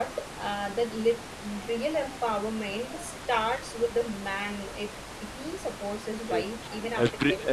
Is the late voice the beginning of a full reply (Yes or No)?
Yes